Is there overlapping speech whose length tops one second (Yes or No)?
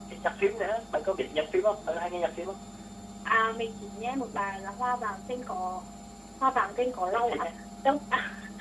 No